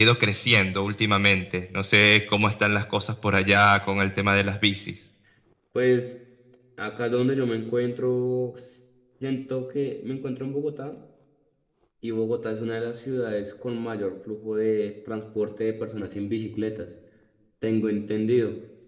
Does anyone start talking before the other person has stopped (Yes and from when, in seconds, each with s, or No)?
No